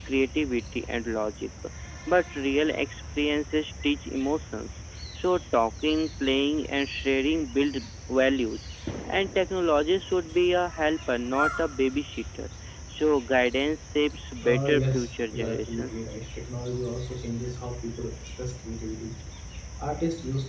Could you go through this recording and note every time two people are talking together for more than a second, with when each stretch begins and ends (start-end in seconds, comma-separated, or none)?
14.4-15.9